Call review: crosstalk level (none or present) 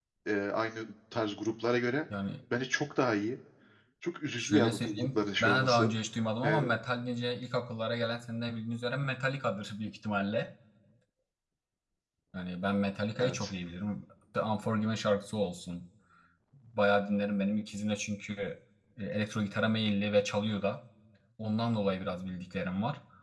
present